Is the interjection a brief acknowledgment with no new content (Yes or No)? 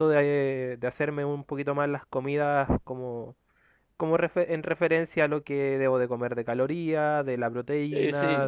Yes